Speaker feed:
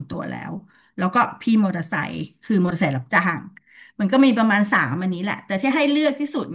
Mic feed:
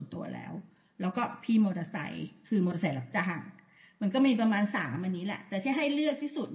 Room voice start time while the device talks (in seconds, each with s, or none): none